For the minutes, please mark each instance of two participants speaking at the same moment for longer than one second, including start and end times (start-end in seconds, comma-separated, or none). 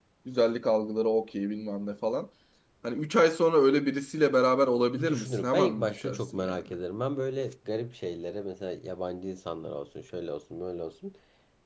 5.1-6.7